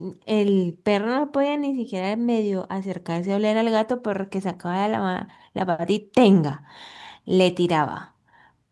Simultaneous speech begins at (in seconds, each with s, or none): none